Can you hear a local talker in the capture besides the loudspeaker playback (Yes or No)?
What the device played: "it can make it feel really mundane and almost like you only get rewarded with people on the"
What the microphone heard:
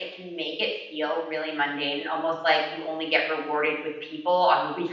No